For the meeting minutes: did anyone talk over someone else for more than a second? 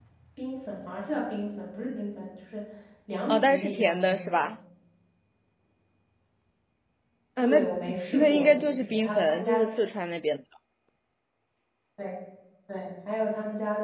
Yes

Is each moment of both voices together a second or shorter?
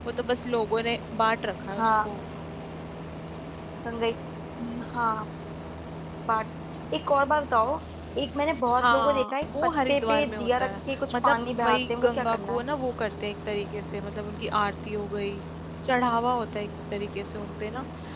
No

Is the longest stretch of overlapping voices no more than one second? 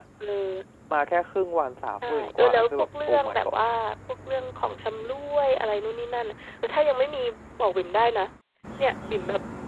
No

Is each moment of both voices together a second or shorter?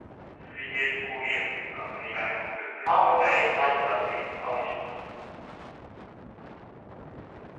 No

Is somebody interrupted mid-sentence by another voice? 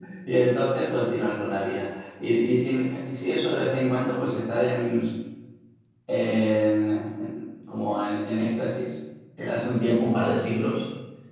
No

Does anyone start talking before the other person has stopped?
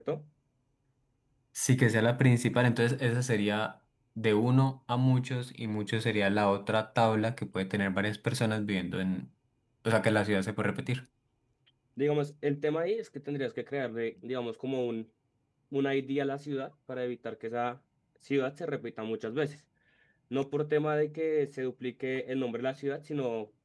No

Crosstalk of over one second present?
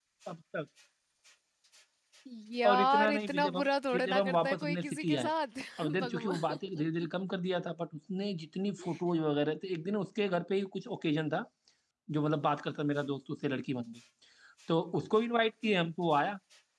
Yes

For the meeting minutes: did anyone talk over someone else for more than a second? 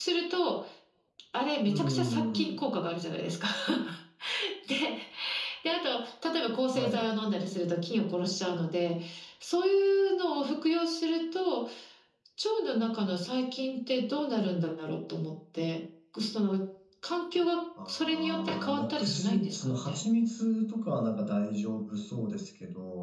Yes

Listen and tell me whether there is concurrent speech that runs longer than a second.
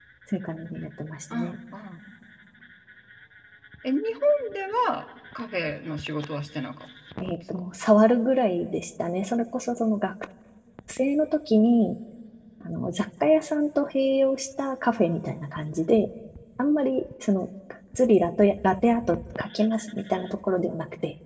No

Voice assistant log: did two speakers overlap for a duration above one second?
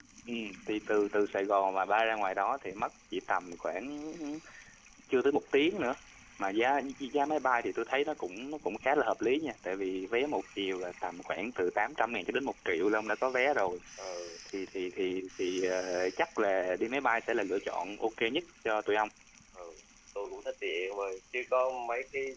No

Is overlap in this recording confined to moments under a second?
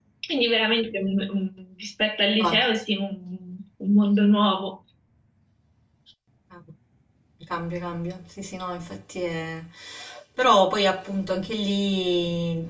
Yes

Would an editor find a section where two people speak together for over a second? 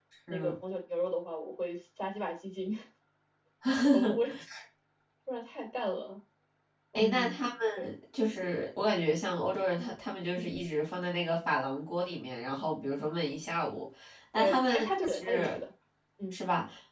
Yes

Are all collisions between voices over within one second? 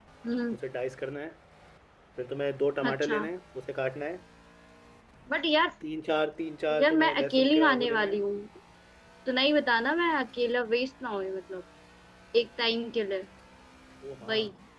No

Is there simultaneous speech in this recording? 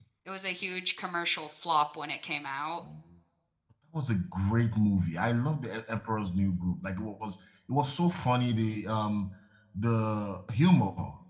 No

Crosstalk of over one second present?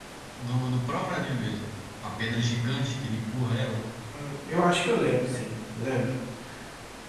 No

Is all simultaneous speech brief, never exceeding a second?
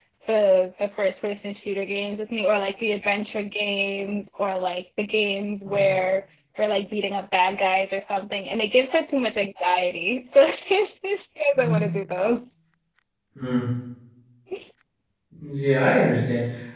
Yes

